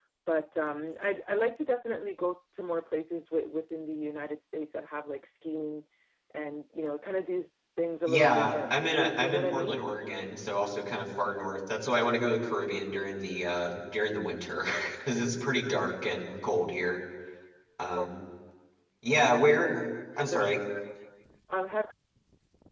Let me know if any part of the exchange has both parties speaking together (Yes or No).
Yes